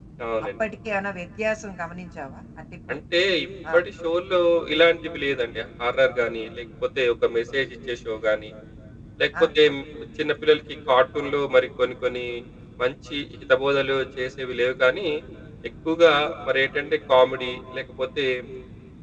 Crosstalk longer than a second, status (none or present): none